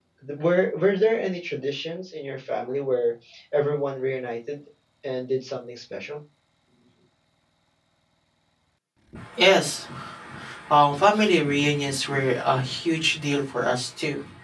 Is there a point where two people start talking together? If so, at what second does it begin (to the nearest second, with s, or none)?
none